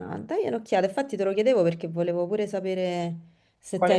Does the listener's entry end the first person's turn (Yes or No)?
Yes